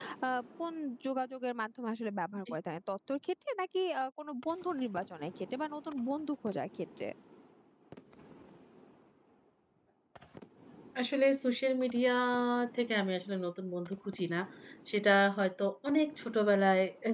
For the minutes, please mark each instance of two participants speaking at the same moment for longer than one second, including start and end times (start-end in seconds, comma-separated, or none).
none